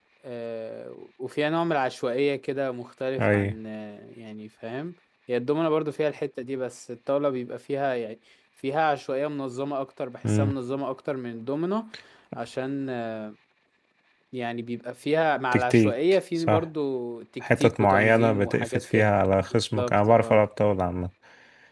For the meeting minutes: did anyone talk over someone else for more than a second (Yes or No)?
Yes